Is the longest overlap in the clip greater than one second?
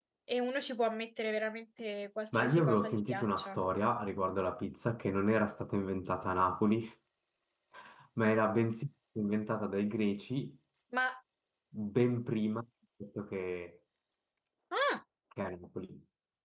Yes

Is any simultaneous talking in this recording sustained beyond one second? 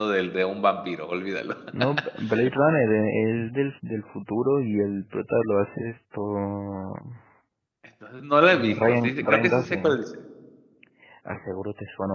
Yes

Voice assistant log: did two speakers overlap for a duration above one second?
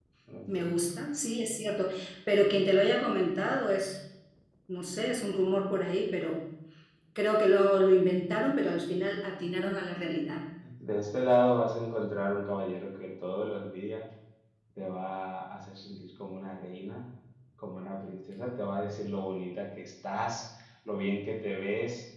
No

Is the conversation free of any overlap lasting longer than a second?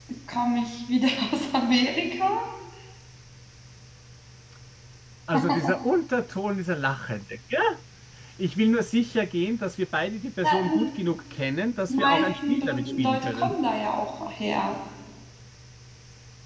No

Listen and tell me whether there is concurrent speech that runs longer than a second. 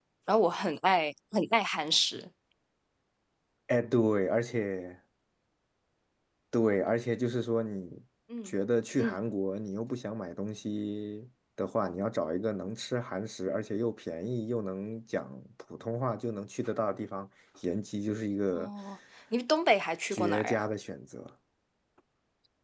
No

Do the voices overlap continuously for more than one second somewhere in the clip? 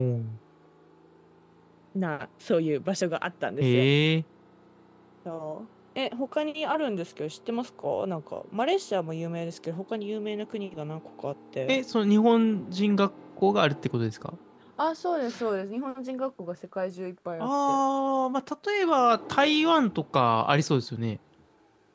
No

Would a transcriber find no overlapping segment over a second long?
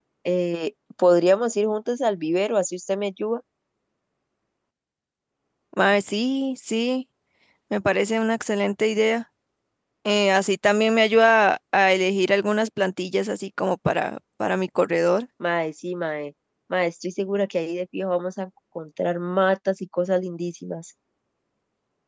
Yes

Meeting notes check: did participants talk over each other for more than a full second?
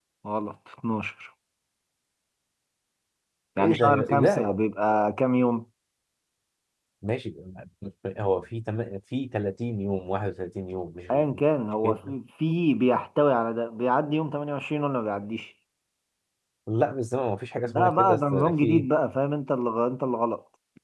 Yes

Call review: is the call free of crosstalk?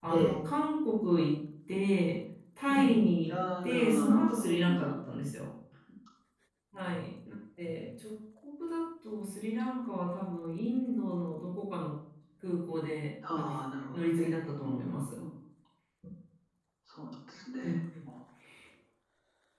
No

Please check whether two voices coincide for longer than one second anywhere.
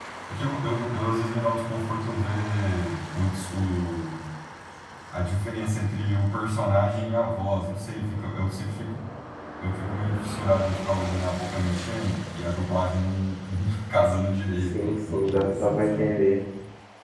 Yes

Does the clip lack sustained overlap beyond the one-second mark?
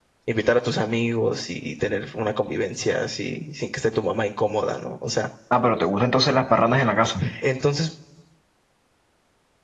Yes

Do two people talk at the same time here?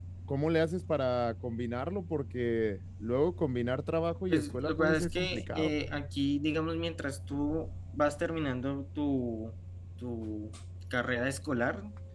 Yes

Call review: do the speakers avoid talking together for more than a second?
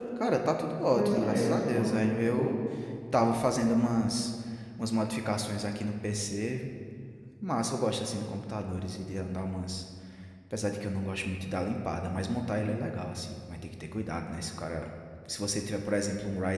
No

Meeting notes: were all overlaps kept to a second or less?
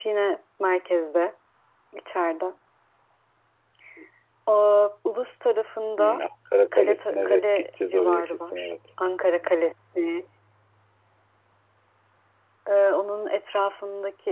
No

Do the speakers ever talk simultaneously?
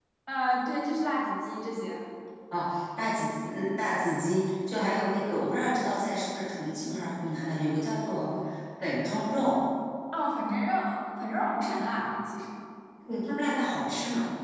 No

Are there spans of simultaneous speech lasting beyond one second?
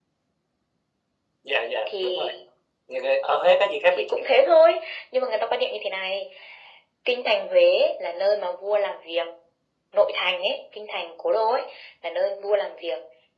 No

